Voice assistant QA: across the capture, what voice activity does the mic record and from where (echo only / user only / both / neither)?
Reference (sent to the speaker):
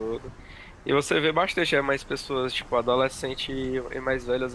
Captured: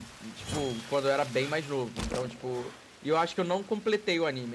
user only